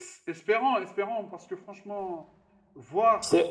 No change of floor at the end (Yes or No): Yes